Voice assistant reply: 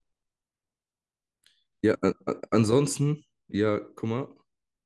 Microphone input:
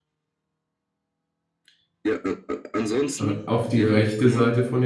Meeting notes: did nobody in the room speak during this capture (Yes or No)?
No